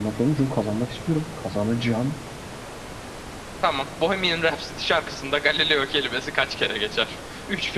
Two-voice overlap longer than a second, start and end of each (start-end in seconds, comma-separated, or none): none